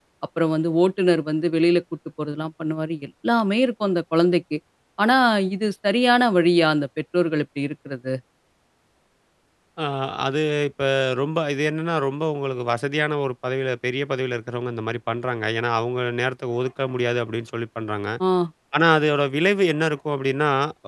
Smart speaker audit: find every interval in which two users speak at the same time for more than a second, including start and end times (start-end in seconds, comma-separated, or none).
none